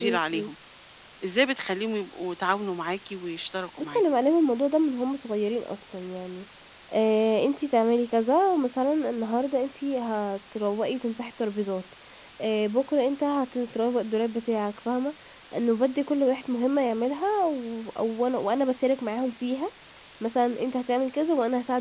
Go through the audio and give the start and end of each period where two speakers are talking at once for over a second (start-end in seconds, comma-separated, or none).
none